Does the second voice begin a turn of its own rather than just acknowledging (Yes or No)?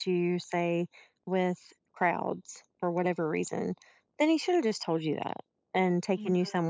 No